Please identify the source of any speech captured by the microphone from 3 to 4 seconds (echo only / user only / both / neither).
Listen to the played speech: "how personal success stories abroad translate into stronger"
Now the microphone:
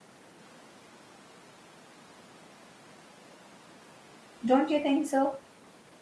neither